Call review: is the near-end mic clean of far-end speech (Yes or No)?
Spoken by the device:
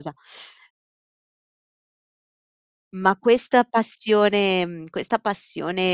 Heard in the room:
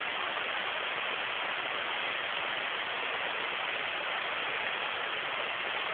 Yes